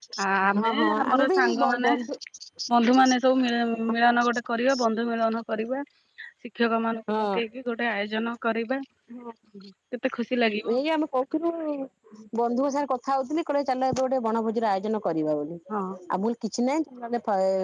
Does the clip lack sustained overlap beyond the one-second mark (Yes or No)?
No